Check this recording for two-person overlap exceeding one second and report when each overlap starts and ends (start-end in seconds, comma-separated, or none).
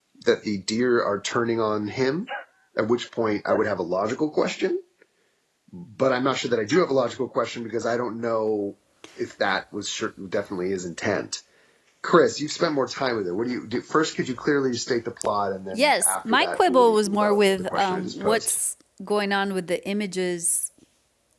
15.7-18.5